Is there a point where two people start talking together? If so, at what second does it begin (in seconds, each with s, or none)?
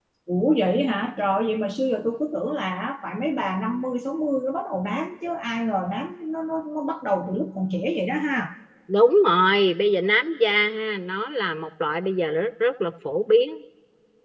none